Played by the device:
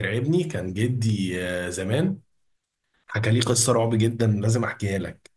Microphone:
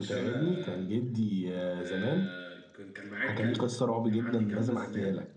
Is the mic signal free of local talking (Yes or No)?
No